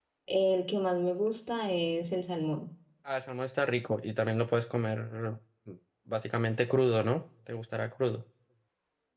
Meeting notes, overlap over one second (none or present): none